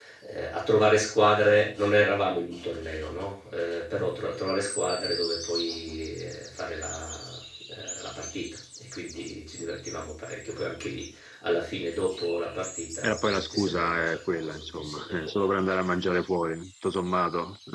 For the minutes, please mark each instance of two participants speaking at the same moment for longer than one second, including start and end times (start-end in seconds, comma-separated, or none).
13.0-15.4